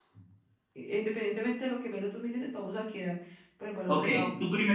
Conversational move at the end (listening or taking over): taking over